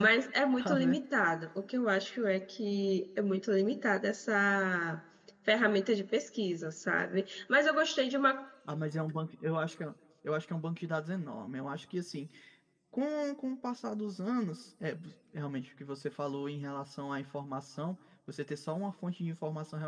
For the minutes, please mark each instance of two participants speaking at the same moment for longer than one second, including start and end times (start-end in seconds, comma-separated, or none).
none